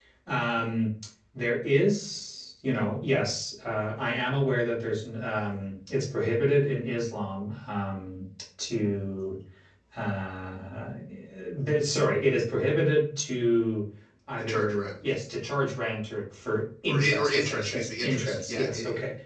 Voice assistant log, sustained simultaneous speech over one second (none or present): present